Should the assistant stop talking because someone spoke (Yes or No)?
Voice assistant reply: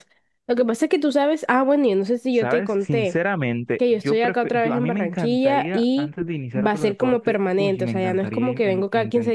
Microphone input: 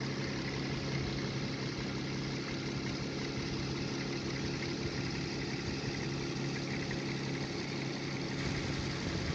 No